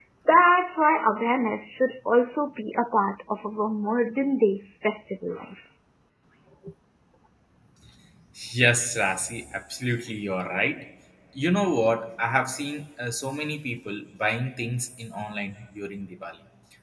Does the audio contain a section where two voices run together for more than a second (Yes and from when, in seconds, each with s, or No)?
No